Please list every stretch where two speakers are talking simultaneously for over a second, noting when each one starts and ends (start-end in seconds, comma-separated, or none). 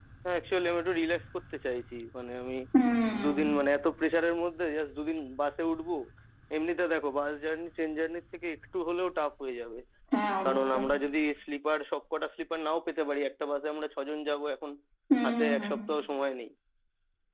none